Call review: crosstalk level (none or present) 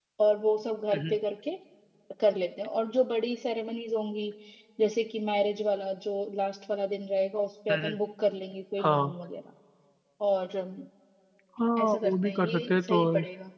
present